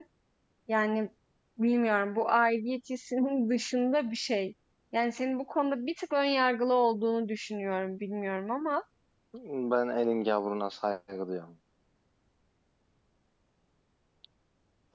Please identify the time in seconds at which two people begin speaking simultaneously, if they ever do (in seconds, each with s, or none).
none